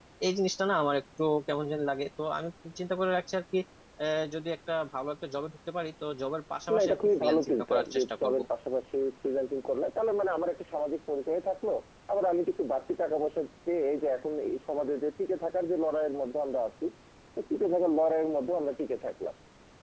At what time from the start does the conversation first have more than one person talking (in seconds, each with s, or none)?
6.7 s